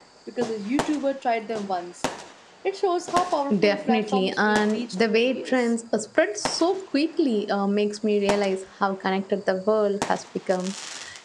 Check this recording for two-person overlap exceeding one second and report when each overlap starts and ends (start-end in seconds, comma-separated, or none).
3.6-5.7